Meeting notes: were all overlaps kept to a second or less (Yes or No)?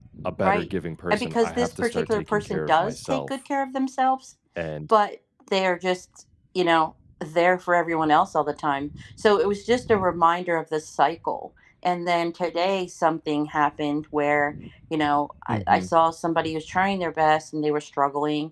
No